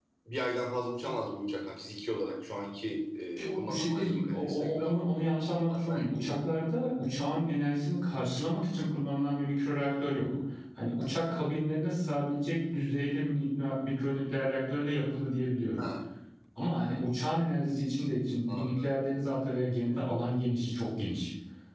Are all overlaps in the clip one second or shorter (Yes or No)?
No